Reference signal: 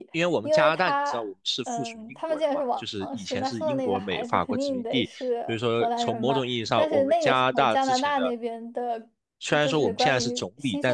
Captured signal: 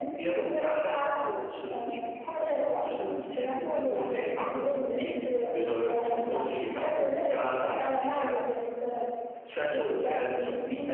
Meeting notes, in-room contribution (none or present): none